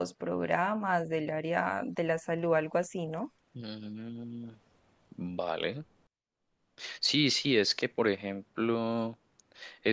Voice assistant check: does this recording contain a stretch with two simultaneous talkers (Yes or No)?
No